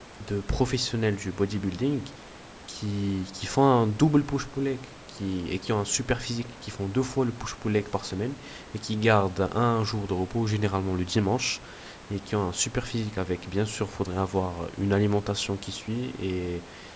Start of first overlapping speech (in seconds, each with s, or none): none